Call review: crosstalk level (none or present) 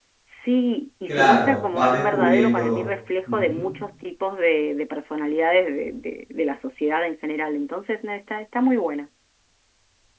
present